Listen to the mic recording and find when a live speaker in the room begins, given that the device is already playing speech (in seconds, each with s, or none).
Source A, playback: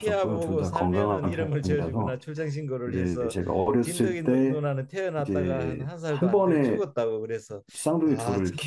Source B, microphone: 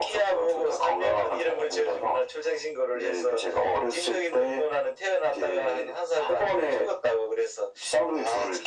none